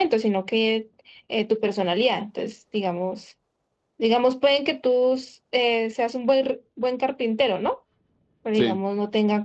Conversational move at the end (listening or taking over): listening